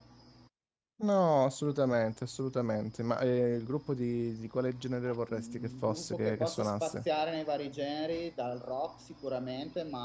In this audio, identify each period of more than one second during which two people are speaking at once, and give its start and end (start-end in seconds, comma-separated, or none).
5.1-7.0